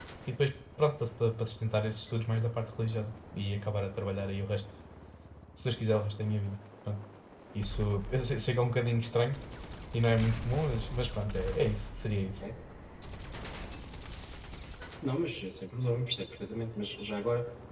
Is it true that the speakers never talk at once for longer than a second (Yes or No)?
Yes